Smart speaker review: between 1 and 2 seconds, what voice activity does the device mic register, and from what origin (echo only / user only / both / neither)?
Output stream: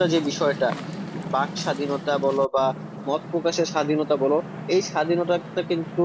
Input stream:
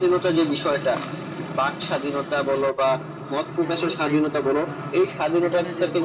echo only